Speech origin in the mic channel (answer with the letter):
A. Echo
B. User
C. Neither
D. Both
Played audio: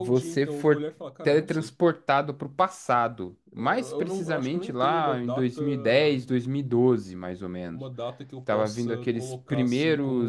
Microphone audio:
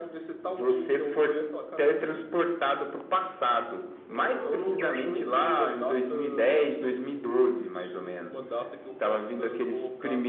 A